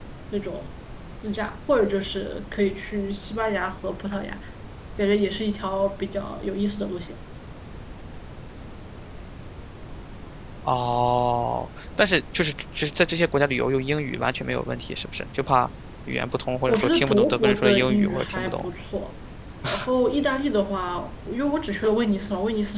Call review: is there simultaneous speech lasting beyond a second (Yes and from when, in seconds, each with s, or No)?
Yes, from 16.7 s